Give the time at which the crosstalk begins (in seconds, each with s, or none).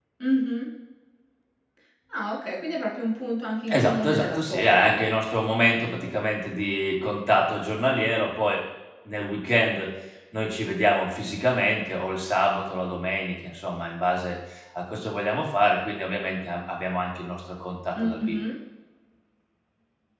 3.7 s